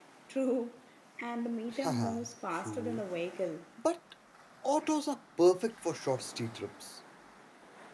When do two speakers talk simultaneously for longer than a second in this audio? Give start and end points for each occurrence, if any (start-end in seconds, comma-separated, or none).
1.8-3.0